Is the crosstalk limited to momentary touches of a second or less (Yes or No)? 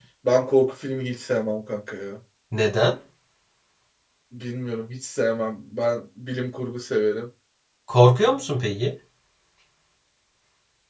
Yes